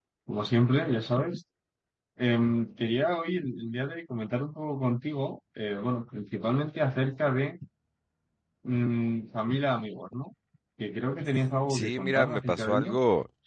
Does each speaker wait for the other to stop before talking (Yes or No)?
No